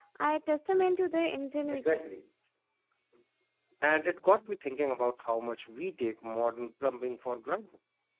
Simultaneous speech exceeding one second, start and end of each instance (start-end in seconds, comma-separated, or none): none